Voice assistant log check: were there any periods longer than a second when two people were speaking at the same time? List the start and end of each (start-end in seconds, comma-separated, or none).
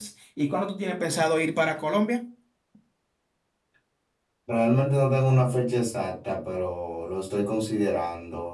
none